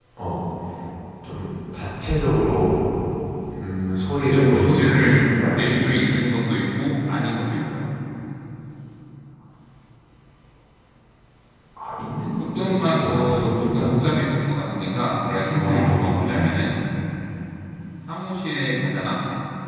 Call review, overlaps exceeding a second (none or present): present